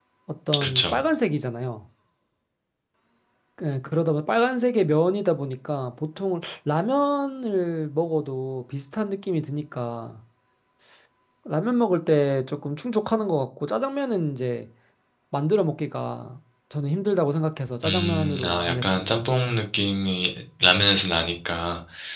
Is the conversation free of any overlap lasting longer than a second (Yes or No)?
No